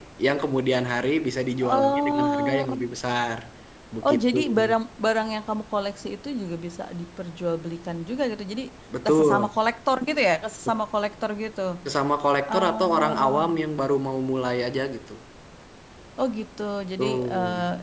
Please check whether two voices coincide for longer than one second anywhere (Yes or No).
Yes